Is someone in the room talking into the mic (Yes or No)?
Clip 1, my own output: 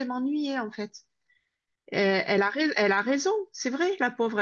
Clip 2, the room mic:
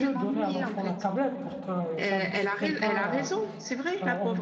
Yes